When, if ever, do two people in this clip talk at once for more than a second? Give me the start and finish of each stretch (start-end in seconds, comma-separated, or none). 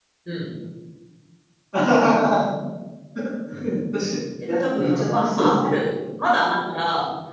4.5-5.8